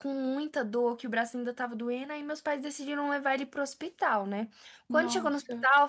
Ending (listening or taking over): listening